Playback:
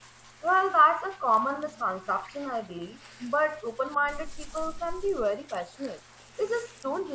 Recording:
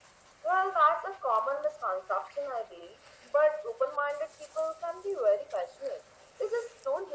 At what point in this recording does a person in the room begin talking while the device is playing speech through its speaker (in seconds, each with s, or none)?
none